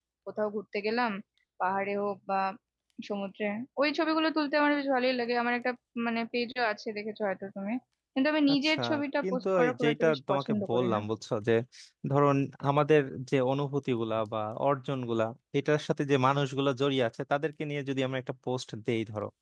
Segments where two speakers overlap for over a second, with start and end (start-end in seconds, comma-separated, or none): 9.2-11.0